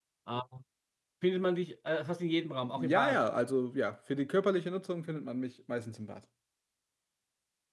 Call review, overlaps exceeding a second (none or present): none